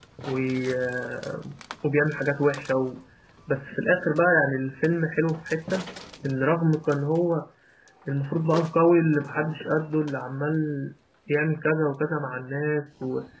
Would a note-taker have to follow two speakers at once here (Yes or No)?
No